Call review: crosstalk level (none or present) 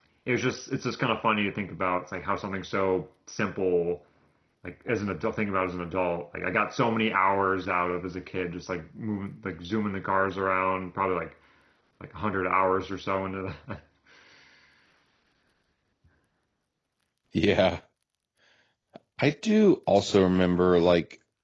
none